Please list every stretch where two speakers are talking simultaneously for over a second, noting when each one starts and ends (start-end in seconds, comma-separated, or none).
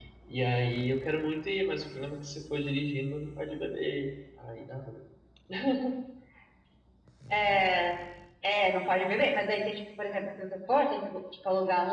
none